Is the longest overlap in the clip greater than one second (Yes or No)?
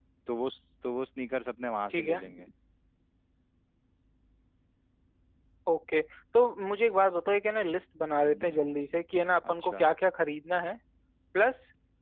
No